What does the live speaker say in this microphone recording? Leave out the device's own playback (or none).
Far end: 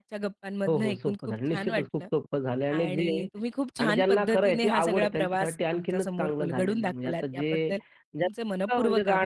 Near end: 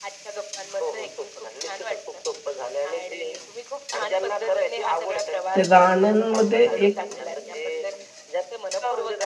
त्या गाण्यांमध्ये एक